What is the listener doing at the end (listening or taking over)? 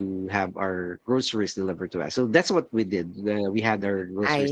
listening